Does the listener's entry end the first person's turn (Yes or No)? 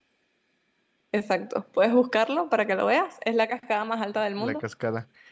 Yes